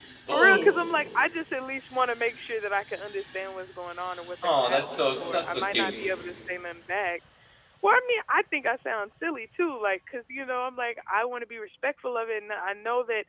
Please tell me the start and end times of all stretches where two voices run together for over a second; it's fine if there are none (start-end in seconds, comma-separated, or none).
4.4-5.9